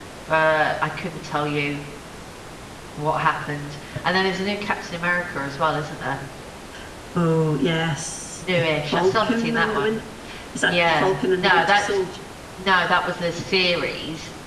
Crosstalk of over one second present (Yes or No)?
Yes